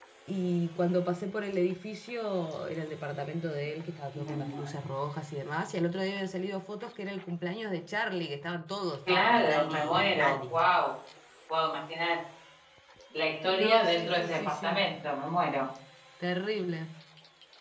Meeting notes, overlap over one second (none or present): present